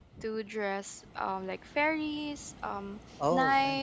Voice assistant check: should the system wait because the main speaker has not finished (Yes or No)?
Yes